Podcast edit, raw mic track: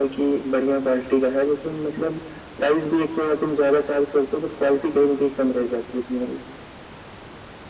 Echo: present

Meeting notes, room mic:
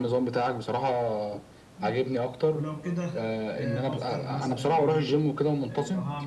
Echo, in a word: present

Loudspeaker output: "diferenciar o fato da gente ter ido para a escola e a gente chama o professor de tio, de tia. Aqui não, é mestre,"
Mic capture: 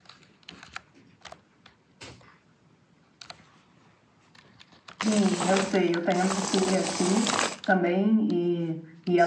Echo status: none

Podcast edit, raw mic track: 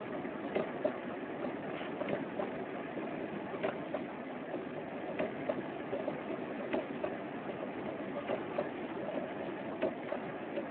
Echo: none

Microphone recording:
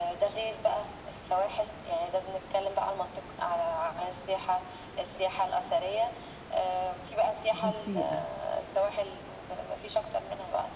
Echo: present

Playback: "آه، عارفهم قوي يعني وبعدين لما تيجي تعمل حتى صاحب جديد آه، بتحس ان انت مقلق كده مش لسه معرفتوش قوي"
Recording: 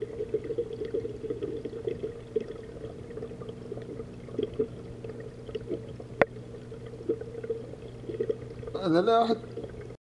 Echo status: none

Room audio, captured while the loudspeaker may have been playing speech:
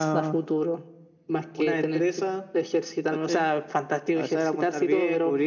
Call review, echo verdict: present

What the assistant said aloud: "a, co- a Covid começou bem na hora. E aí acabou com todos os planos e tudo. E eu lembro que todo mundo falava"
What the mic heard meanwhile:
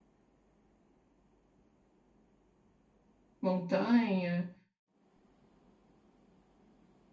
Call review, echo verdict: none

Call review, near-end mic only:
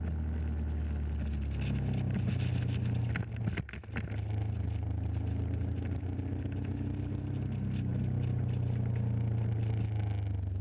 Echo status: none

